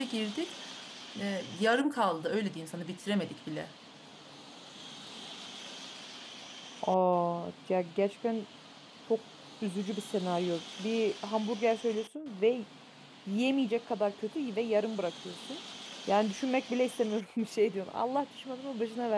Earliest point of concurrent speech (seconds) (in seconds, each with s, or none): none